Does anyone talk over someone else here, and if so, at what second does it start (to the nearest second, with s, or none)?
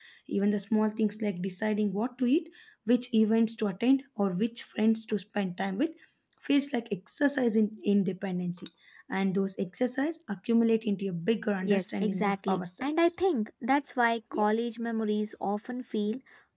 12 s